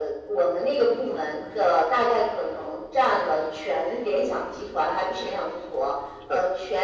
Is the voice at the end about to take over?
No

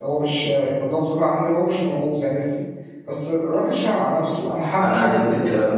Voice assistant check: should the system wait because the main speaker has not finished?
No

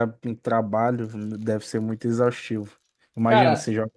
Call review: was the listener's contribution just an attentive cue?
Yes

